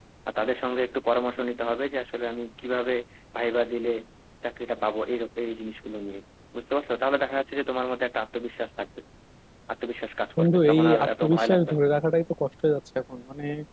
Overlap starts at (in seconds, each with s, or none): 10.4 s